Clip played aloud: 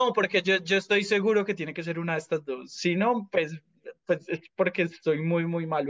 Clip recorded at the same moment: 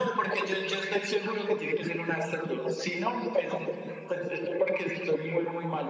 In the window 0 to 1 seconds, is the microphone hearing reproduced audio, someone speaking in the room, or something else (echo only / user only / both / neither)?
echo only